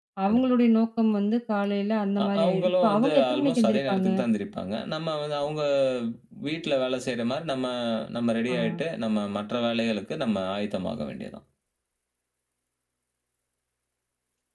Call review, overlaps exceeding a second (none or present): present